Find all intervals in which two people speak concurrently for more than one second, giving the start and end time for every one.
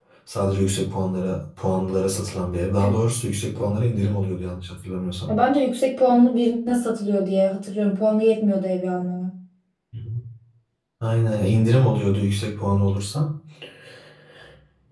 none

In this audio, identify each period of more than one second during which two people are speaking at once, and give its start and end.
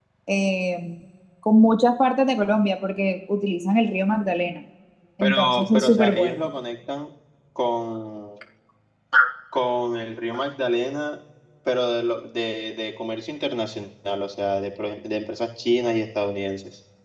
5.2-6.5

